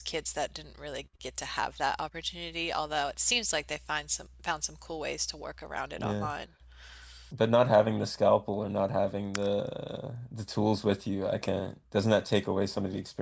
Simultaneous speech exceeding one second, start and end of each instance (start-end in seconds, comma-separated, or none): none